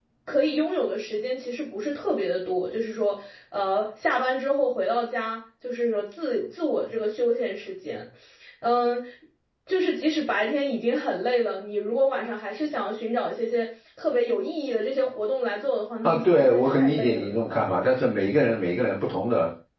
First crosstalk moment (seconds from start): 16 s

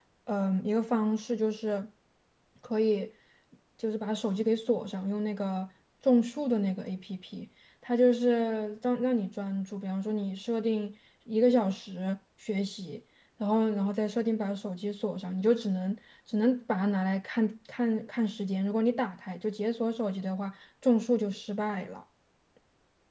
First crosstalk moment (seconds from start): none

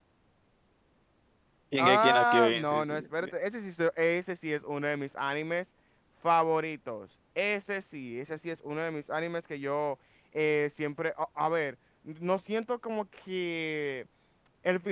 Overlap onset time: 2 s

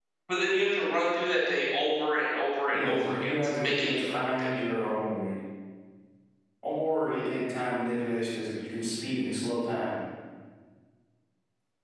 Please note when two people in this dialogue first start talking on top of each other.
3 s

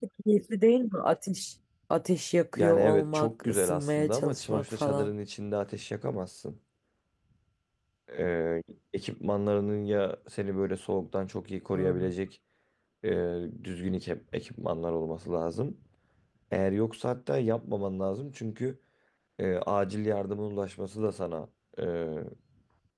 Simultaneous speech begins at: 3 s

